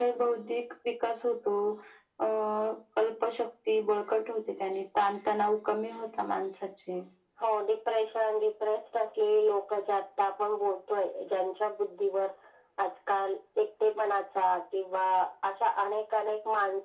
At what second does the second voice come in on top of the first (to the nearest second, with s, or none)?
none